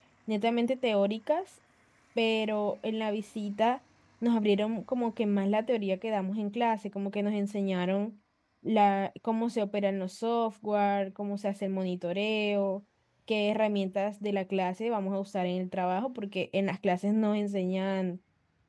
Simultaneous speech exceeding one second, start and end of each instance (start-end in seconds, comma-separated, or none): none